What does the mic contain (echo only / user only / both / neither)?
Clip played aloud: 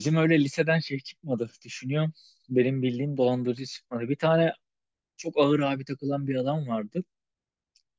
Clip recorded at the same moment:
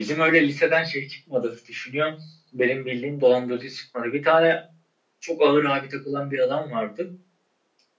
echo only